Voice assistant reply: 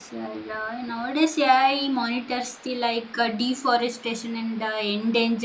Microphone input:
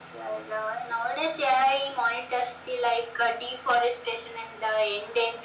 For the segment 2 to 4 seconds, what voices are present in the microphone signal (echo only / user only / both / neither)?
echo only